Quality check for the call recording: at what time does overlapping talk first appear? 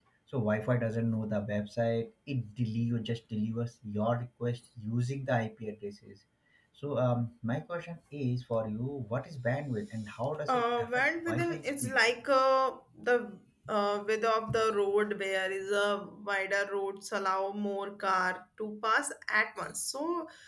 10.5 s

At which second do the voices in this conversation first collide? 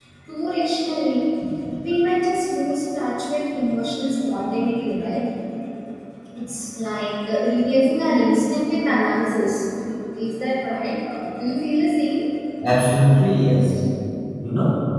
none

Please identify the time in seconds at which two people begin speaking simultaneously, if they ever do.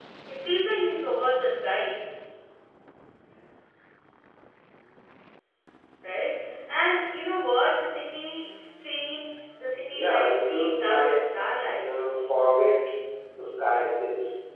9.9 s

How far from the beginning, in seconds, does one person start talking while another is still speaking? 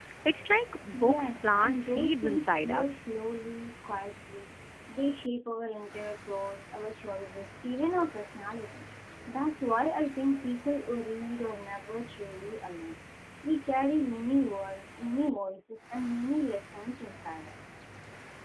0.9 s

